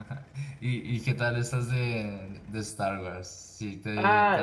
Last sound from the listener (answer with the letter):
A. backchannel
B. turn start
B